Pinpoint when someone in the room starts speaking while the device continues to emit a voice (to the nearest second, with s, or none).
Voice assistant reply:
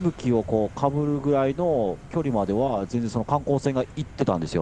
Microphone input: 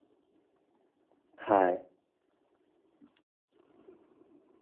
1 s